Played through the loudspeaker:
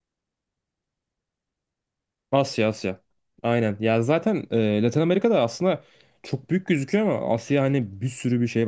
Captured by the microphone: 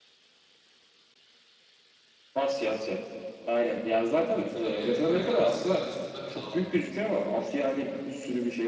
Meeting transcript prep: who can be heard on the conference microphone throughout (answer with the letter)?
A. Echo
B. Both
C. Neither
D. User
B